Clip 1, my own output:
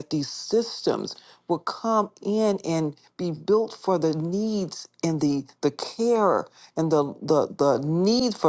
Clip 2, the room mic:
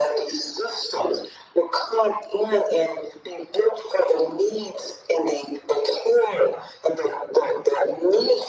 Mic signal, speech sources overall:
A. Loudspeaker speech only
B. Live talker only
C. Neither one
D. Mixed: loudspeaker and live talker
A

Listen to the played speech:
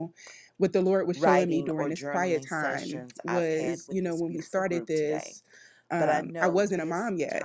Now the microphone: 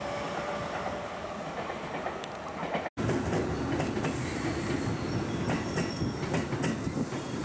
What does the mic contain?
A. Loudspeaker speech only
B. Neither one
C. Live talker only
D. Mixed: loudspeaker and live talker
B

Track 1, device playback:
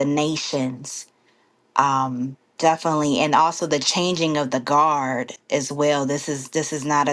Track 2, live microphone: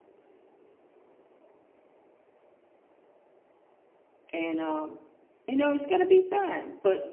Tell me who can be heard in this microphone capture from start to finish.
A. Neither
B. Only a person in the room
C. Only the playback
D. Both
B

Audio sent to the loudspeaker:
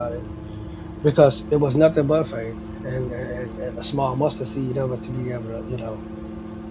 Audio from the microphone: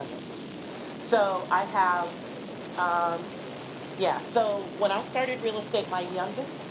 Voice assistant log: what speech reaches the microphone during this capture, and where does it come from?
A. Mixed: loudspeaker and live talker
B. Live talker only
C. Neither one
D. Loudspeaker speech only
B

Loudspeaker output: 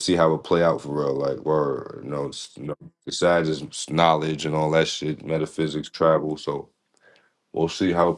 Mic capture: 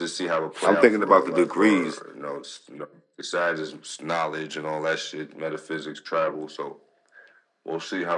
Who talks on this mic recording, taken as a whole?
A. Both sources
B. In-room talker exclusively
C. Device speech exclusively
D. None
A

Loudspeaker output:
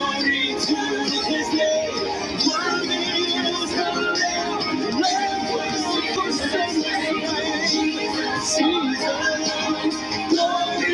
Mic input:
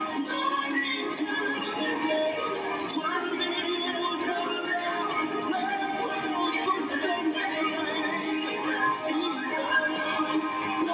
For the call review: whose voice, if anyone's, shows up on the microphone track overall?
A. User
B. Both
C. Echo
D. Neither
C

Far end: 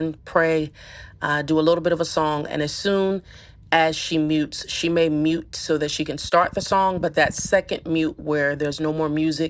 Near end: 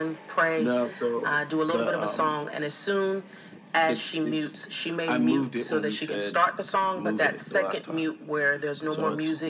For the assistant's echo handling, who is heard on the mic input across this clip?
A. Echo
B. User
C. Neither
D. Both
D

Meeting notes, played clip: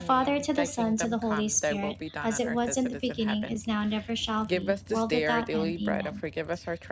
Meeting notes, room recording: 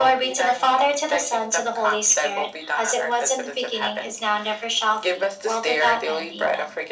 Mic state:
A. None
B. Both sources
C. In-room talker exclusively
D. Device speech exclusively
D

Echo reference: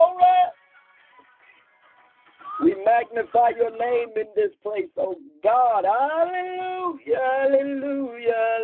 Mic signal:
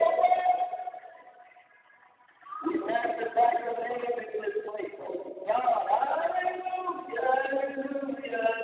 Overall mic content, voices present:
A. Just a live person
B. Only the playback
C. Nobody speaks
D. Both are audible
B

